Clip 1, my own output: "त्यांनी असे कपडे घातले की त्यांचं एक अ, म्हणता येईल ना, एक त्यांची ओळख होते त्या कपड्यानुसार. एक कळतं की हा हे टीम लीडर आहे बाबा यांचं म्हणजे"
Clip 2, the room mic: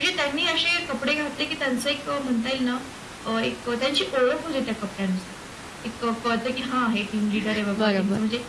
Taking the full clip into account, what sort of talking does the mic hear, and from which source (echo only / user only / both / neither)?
both